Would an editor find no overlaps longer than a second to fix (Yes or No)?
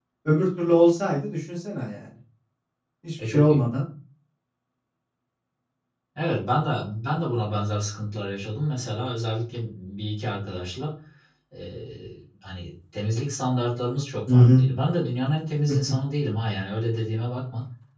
Yes